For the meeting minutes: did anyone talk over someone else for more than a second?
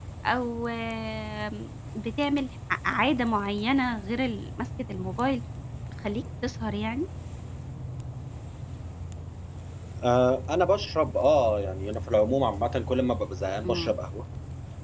No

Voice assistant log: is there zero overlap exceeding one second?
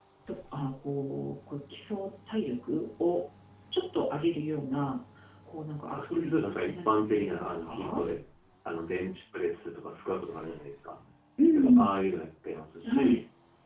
No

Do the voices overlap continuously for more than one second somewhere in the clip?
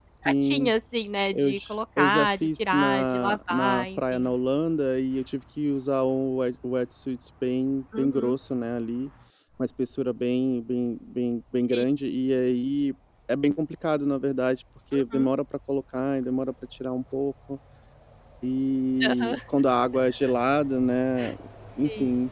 Yes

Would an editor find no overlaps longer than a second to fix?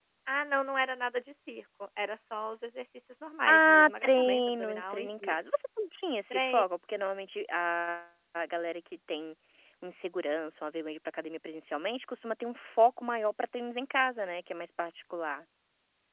No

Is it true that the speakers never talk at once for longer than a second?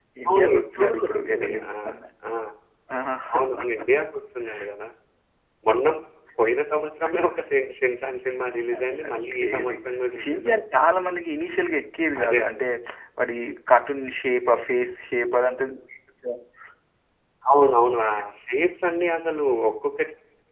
No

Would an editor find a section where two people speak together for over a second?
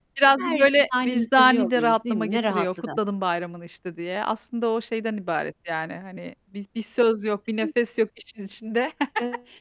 Yes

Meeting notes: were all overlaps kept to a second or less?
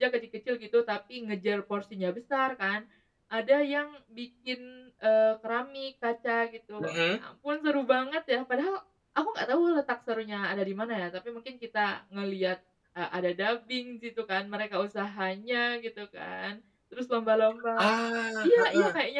Yes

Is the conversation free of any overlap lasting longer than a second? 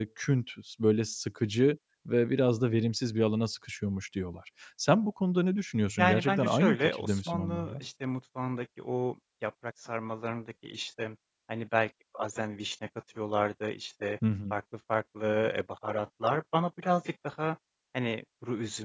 No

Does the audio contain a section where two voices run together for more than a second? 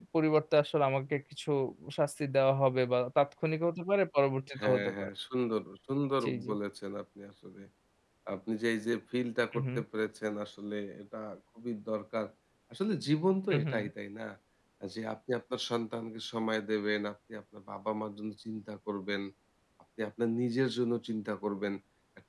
No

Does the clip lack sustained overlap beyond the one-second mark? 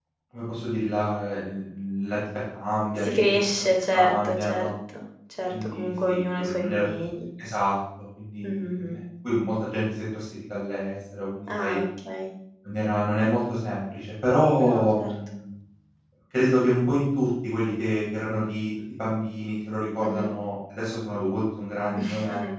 No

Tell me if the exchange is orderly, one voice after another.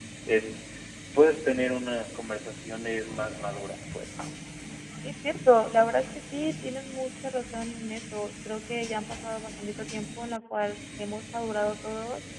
Yes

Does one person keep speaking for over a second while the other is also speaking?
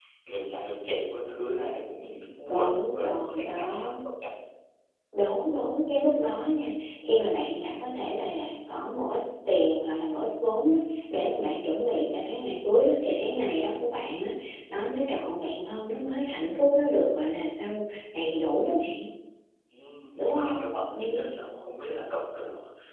Yes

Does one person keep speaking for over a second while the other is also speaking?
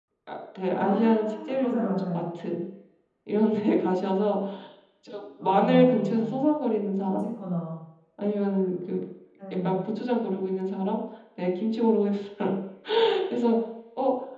Yes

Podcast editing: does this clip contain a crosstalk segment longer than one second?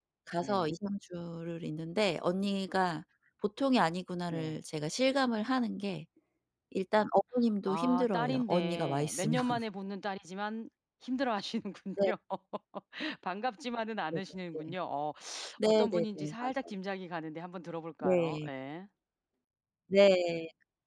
Yes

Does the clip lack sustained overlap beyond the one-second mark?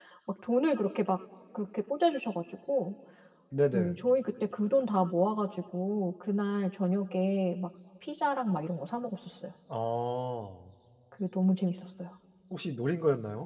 Yes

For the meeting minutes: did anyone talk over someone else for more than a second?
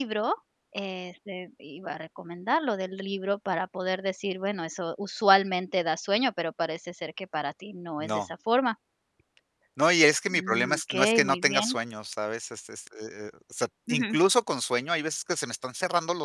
Yes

